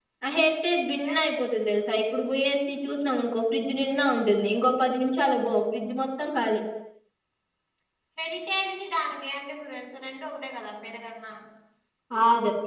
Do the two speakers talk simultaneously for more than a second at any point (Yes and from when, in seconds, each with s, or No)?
No